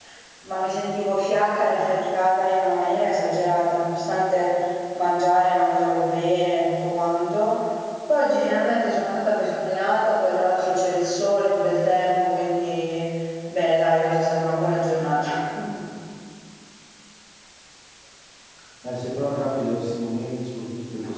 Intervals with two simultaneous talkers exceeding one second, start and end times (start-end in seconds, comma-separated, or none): none